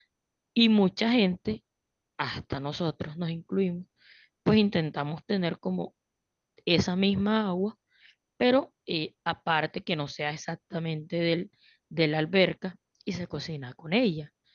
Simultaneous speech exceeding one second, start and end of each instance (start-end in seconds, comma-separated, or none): none